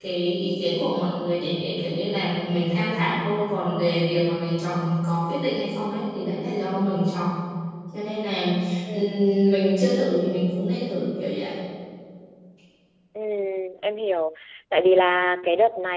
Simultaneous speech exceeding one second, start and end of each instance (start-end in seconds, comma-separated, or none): none